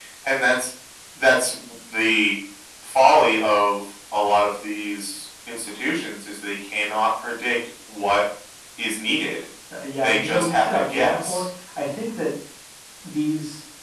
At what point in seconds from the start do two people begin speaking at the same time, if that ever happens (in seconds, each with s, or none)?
10.0 s